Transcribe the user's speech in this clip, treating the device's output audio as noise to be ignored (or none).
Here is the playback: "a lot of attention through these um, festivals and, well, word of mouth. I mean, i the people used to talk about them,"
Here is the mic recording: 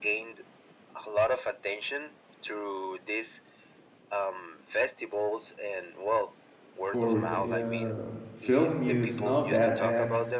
for uh film news and all of that and